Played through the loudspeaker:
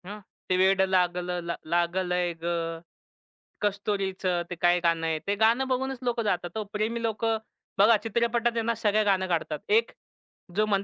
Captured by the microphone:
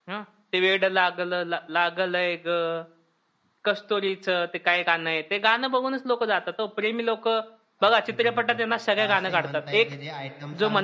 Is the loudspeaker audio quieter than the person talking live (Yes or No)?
No